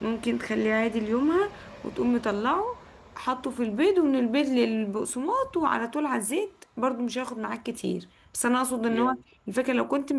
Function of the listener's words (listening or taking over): listening